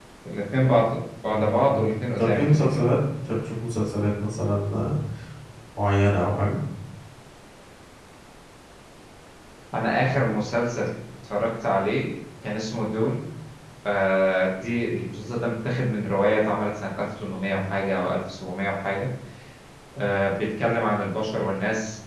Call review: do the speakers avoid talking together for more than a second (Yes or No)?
No